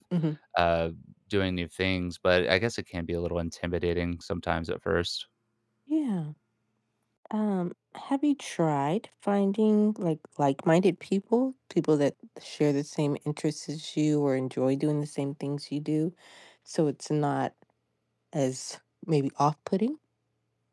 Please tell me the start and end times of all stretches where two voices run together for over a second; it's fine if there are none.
none

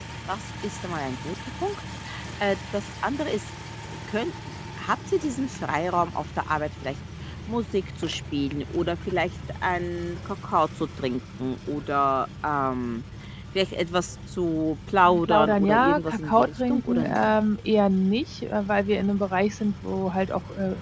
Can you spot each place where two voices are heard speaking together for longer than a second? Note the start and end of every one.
15.0-17.2

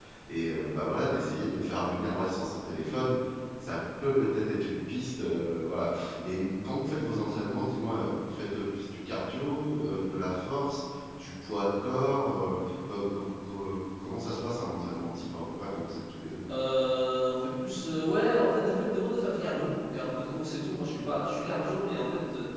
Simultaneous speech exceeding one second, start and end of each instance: none

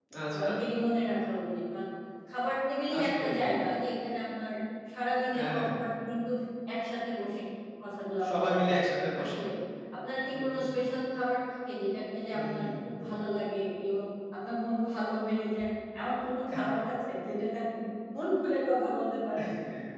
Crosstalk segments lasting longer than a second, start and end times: none

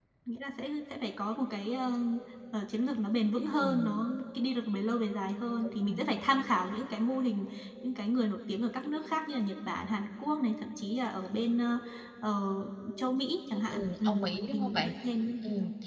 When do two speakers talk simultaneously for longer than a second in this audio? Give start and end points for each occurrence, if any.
13.7-14.9

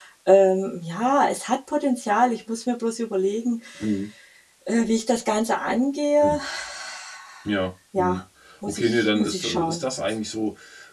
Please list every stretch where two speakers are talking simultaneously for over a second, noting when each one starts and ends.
8.6-9.8

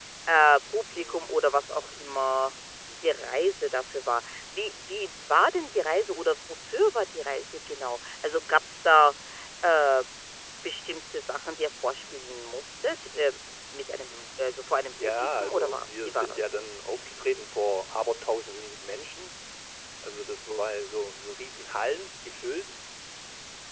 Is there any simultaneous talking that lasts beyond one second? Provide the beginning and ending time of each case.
15.0-16.6

